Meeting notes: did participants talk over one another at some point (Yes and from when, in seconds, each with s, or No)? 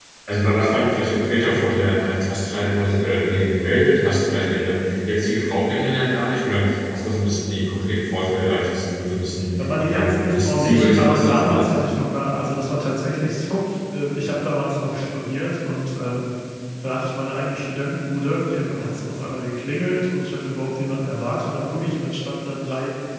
Yes, from 9.6 s